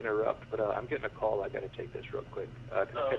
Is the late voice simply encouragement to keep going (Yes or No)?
No